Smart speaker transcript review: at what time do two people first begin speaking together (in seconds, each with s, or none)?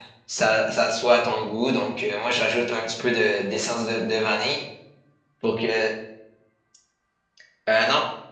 none